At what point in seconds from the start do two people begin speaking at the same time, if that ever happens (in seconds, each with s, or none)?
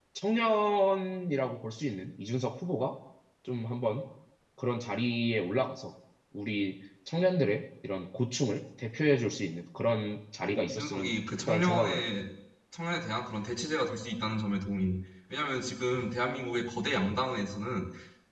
10.4 s